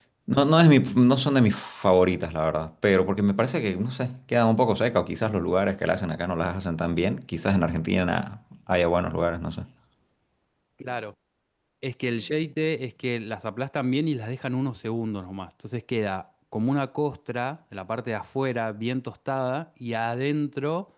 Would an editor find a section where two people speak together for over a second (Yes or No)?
No